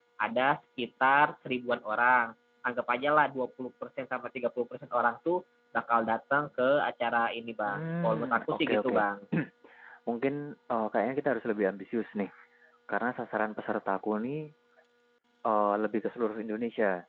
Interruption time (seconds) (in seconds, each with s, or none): 7.6 s